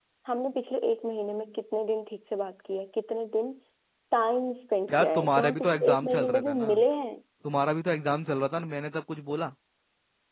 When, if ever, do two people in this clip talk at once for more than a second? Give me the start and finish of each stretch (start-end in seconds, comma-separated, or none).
4.9-6.7